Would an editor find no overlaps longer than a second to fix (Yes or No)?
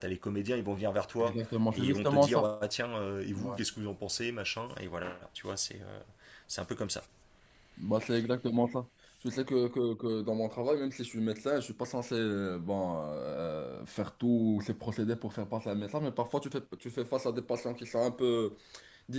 No